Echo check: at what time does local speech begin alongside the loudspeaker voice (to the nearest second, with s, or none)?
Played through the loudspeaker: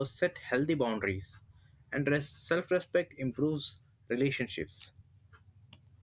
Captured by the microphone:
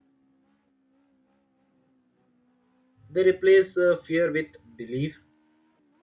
3 s